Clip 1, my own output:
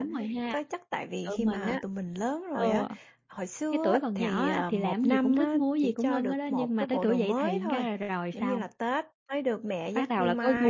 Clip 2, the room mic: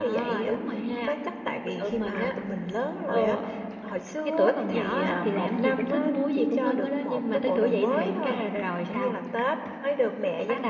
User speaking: No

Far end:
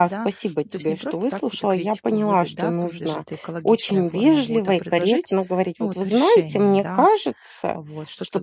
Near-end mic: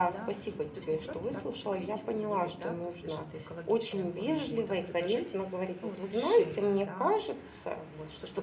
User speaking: No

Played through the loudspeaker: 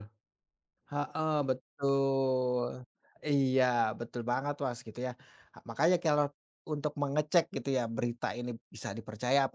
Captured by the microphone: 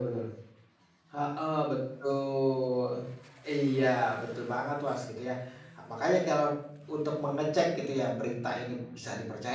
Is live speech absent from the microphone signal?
Yes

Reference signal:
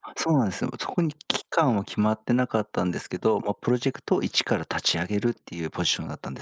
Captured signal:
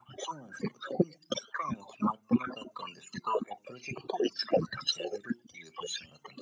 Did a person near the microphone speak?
No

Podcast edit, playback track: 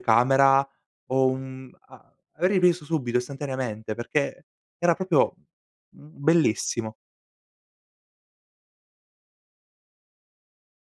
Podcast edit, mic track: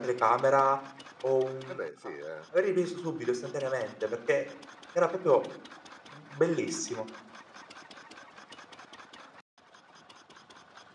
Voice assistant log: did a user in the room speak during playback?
Yes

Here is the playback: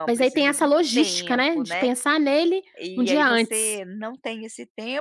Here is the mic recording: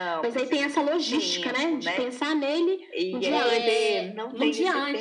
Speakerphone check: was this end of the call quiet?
No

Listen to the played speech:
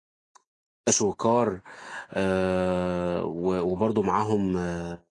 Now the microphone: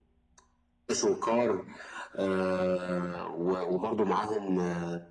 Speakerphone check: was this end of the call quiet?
Yes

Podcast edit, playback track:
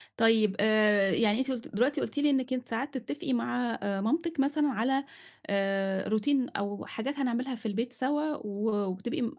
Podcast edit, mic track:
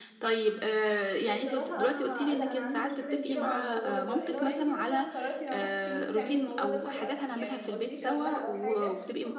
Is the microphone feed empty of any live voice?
No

